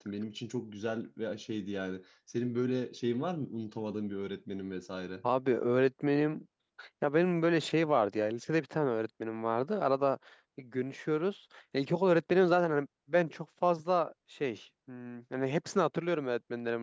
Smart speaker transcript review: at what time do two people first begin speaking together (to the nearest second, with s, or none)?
none